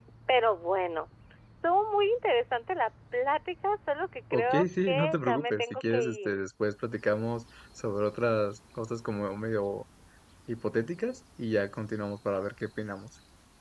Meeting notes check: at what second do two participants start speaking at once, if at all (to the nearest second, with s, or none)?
4 s